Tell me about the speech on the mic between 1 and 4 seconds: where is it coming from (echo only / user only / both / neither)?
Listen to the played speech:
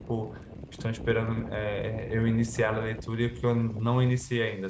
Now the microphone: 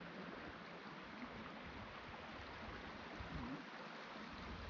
neither